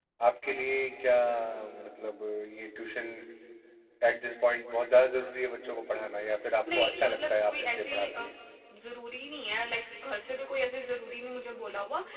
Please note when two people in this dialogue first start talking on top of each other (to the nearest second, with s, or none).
7 s